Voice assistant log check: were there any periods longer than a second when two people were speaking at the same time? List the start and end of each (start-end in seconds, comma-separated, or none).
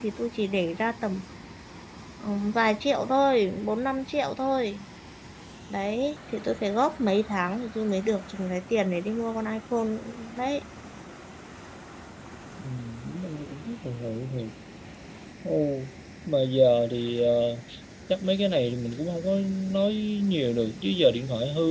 none